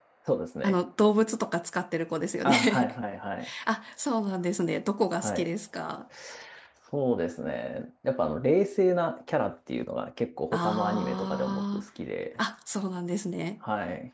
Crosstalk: present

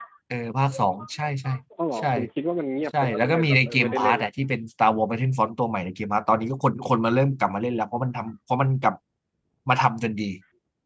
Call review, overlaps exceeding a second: present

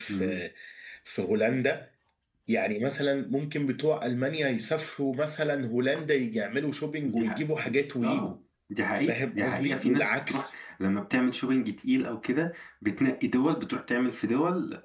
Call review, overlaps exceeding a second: present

